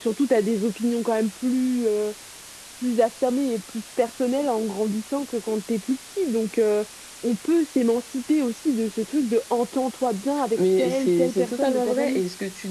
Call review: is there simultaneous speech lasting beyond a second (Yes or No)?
Yes